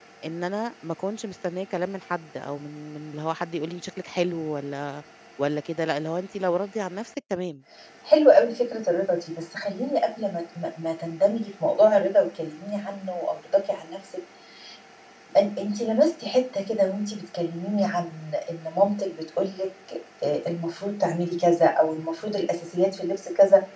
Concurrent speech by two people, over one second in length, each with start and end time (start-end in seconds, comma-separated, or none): none